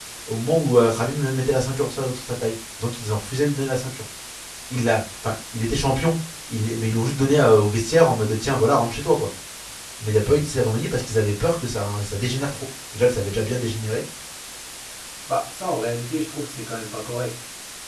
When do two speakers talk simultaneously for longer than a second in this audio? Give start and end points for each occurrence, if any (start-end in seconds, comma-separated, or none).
none